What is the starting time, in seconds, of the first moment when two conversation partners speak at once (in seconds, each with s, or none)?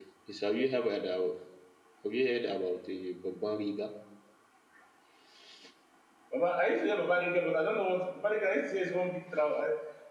none